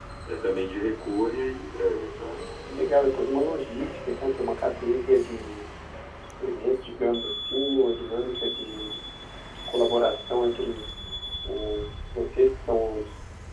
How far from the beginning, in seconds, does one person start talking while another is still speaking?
none

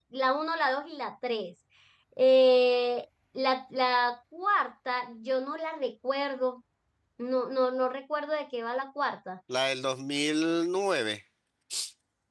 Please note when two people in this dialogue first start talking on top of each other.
none

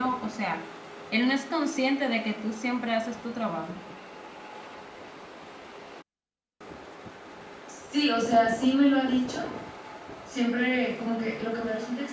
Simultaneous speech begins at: none

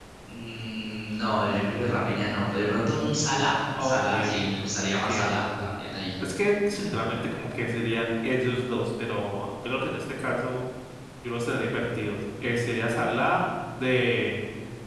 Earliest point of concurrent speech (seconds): 3.8 s

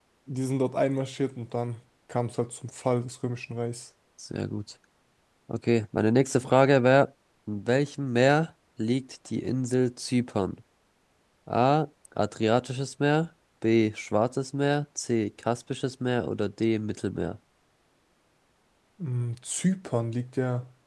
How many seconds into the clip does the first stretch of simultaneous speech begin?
none

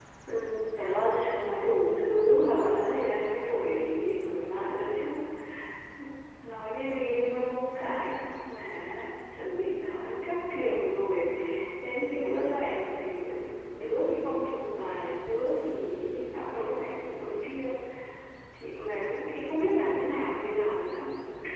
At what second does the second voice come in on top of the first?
none

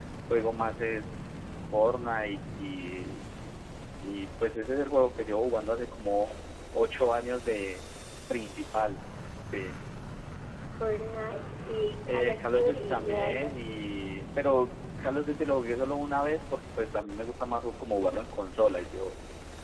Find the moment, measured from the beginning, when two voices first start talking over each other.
12.1 s

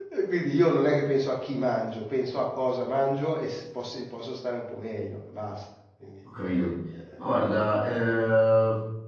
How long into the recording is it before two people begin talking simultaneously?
none

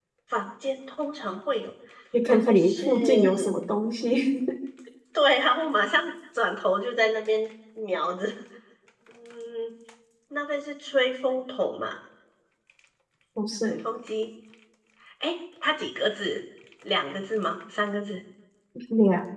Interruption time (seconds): 2.2 s

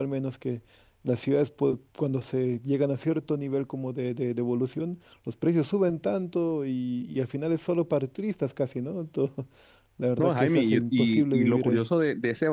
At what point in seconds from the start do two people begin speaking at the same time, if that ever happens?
10.2 s

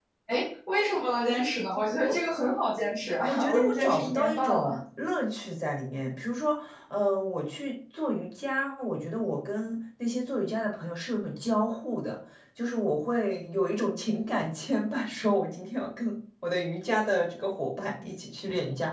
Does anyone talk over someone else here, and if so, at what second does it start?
3.3 s

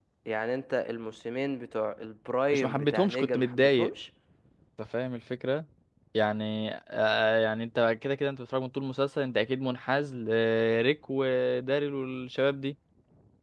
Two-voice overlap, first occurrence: 2.5 s

